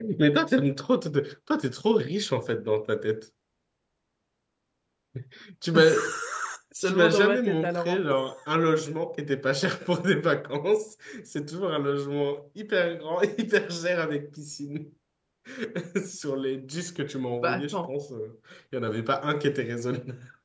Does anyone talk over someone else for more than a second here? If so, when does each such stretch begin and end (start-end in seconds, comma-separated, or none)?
6.8-8.2